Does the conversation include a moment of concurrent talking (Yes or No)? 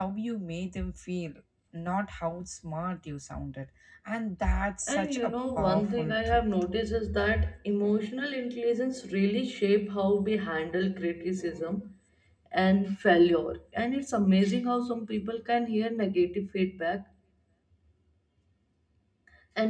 Yes